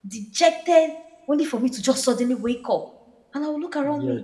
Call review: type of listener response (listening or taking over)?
listening